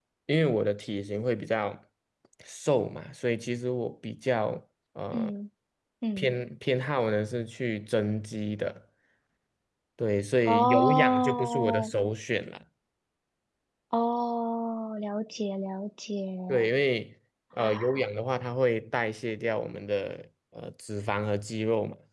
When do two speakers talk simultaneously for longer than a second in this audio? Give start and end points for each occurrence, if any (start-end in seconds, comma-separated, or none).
10.5-11.9